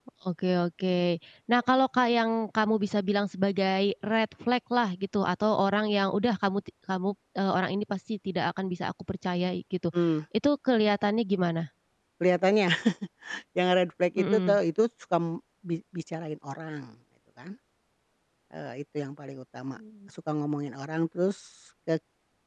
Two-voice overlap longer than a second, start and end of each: none

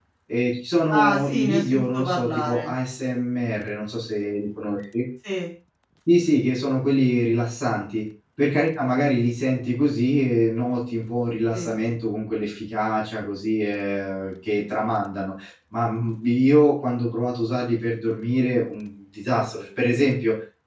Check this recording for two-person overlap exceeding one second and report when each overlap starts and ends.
0.9-2.7

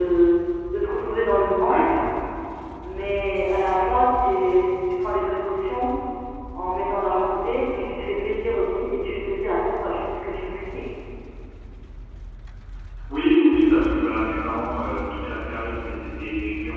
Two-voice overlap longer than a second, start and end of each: none

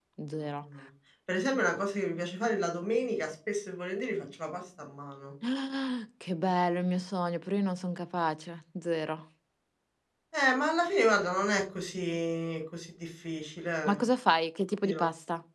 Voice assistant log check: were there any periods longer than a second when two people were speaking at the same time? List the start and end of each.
none

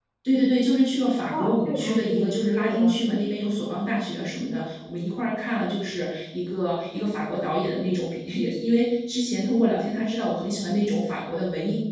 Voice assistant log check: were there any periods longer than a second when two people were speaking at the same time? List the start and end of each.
1.3-2.9

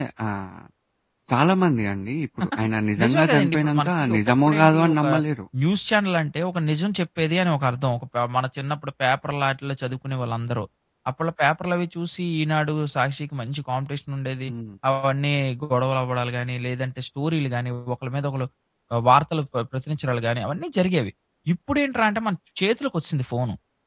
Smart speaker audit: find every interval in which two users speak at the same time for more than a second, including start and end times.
3.0-5.0

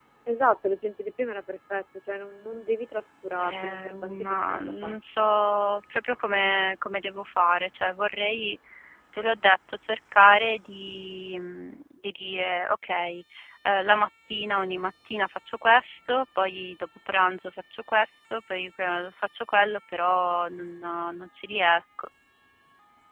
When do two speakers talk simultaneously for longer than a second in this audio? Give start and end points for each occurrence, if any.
3.4-5.3

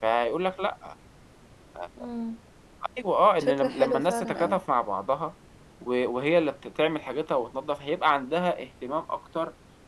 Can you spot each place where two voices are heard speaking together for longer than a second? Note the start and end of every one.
3.4-4.6

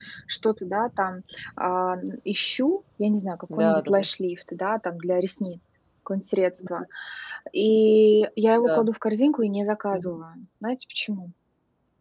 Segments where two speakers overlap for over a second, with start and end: none

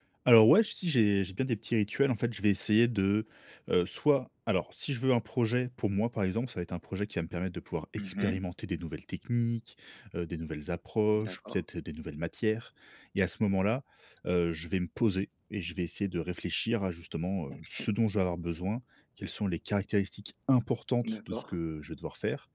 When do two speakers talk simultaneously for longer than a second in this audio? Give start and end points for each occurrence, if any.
none

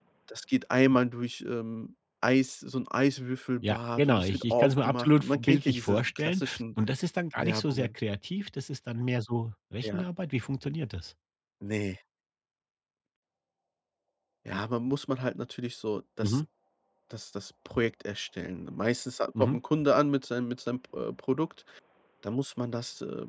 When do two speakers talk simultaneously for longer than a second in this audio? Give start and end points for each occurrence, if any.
3.6-6.6

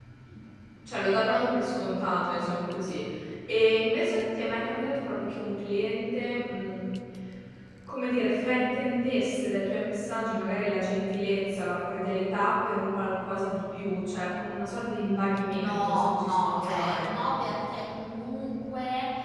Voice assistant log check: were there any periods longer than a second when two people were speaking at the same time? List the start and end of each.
15.6-17.1

